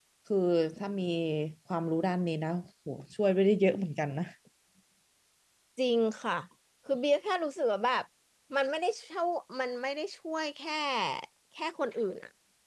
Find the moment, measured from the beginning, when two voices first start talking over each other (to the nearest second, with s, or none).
none